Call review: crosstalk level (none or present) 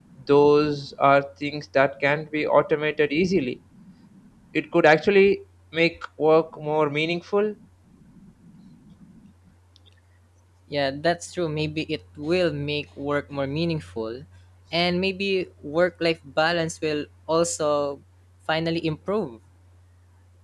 none